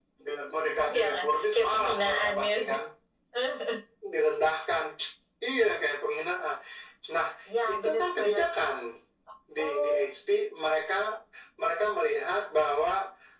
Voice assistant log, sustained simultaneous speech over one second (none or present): present